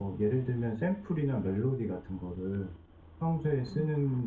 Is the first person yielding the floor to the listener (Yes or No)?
No